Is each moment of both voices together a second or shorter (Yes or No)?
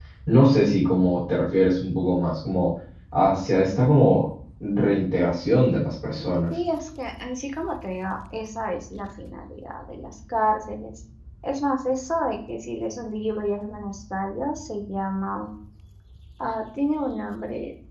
Yes